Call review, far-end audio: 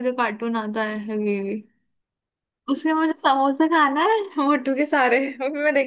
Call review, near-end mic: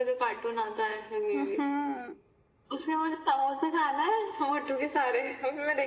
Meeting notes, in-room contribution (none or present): present